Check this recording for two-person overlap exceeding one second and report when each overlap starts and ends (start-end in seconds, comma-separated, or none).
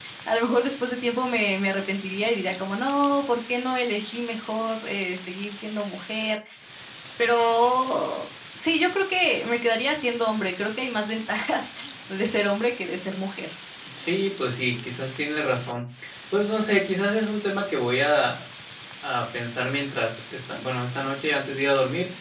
none